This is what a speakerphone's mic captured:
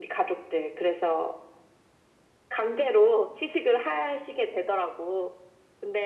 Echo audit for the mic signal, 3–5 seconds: echo only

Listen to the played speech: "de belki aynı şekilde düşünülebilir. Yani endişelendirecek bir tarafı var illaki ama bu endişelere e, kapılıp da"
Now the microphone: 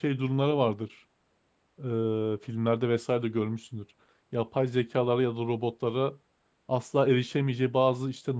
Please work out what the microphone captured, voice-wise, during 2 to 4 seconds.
user only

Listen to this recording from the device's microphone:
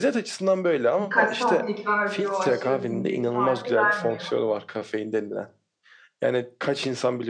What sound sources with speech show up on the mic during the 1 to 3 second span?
both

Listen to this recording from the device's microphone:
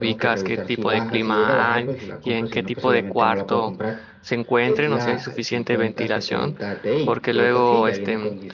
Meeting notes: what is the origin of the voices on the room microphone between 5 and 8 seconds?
both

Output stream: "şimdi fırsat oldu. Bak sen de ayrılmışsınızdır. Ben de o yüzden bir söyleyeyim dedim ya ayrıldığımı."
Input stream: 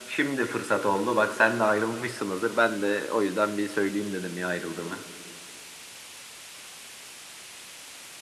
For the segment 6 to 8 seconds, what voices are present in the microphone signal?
neither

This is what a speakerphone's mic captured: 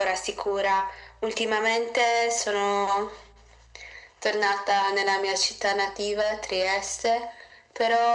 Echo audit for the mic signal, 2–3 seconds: echo only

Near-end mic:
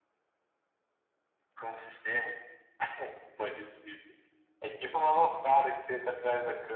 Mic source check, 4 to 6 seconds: echo only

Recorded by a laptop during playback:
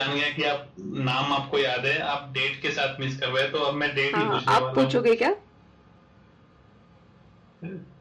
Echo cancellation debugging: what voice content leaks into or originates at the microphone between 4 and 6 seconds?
both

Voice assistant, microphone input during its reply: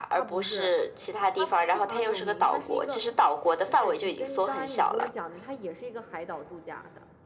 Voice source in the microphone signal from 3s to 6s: both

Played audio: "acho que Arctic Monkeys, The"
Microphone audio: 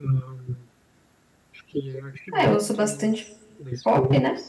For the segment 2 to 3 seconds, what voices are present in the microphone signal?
both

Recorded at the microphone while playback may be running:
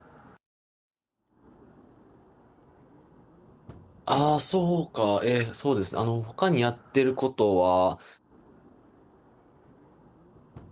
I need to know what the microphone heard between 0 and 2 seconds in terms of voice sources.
neither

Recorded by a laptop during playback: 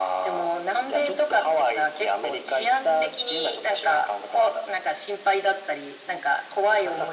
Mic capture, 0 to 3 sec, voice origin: echo only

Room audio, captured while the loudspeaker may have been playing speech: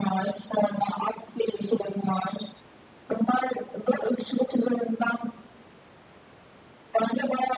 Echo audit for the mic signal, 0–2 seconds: echo only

